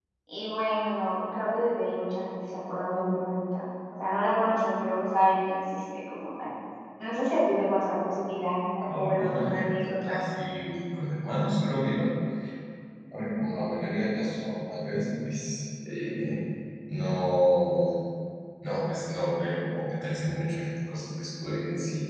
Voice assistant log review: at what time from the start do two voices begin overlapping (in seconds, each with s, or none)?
8.8 s